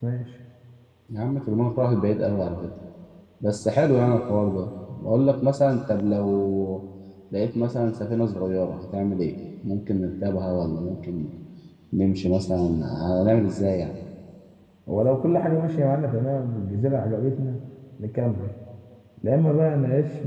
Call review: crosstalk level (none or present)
none